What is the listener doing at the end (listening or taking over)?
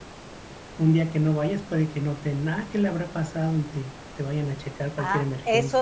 taking over